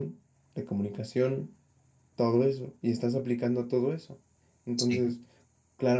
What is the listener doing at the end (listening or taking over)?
listening